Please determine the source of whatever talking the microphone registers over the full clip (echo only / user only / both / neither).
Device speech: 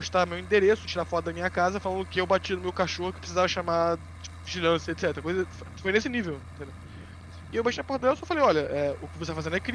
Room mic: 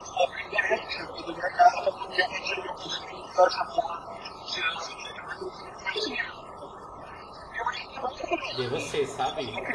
both